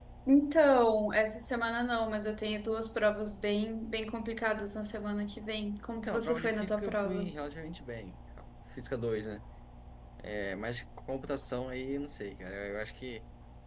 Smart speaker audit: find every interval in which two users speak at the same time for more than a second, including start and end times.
6.0-7.3

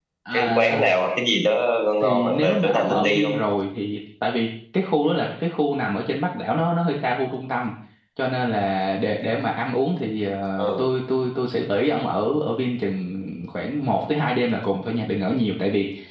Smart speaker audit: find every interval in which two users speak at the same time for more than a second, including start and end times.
2.0-3.4

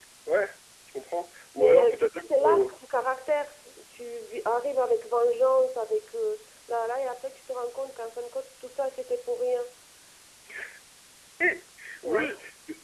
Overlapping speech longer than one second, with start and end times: 1.6-2.8

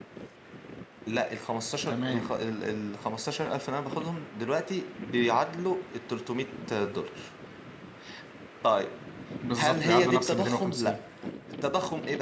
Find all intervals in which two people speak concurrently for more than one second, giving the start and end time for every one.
9.6-10.9

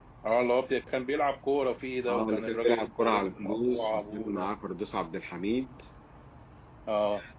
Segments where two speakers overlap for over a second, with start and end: 2.1-4.5

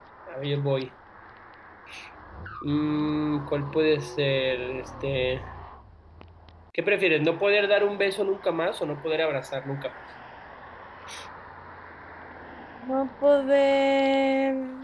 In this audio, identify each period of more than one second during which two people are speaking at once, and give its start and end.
none

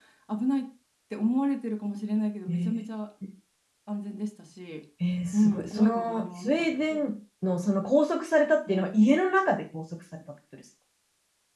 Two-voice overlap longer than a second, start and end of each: 5.3-7.0

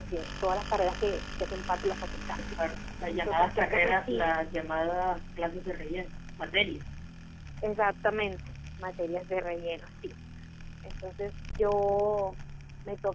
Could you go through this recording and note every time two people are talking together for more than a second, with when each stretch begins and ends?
3.0-4.3

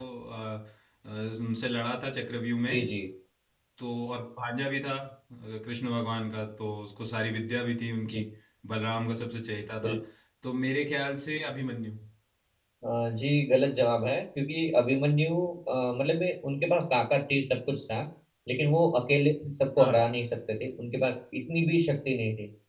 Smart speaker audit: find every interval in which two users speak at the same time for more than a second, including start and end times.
none

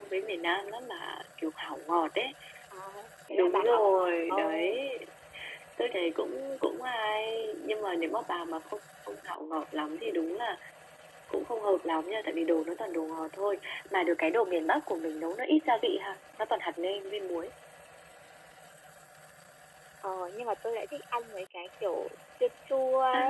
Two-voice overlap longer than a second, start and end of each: 3.3-4.5

